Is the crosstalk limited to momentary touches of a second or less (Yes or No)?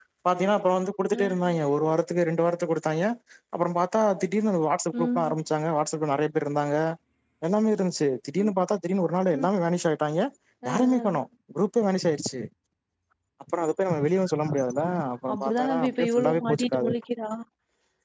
No